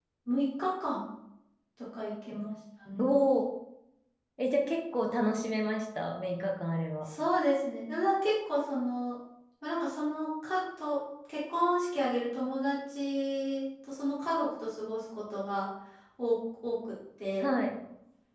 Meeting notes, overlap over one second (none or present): none